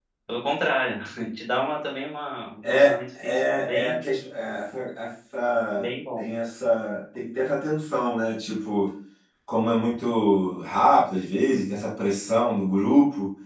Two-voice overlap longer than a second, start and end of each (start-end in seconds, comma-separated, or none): 2.7-4.0